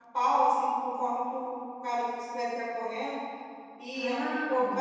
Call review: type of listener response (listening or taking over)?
listening